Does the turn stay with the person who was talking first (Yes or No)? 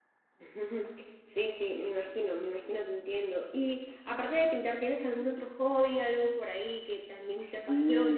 No